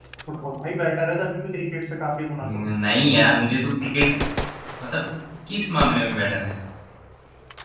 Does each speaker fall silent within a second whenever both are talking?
Yes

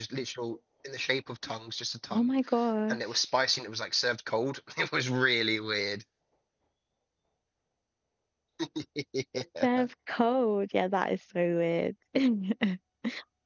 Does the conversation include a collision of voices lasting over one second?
No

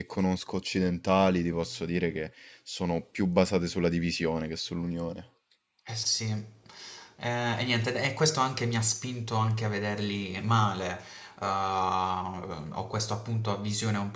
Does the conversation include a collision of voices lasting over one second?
No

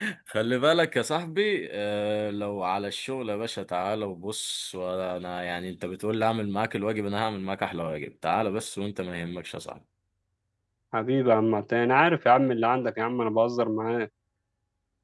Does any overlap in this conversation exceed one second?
No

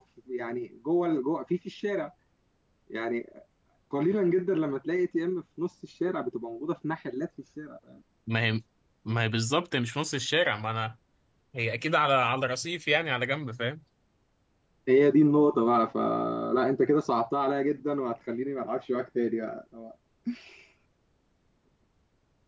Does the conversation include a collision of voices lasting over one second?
No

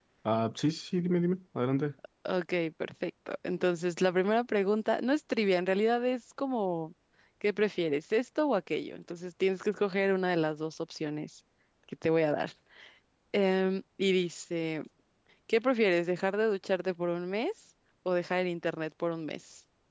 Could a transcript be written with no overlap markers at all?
Yes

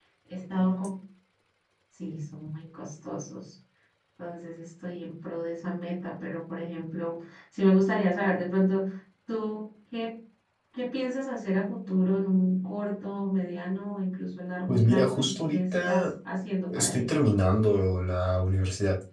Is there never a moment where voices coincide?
No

